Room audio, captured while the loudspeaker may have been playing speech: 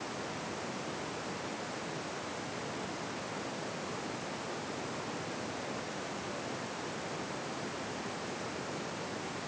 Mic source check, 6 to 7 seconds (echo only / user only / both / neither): neither